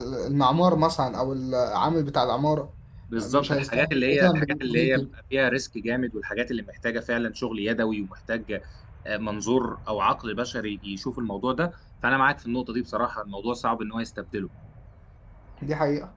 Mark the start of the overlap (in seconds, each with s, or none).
3.2 s